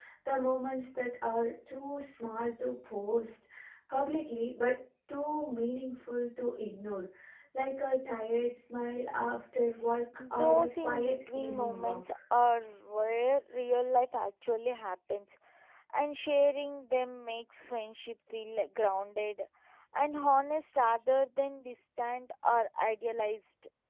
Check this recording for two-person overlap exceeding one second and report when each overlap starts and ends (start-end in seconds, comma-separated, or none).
10.3-12.1